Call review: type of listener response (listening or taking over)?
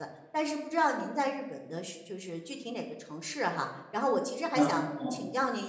listening